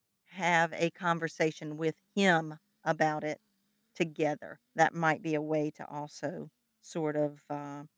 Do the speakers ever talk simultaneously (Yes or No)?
No